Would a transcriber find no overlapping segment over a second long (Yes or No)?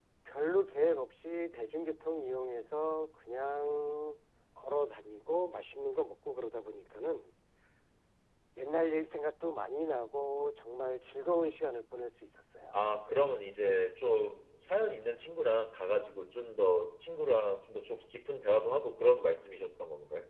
Yes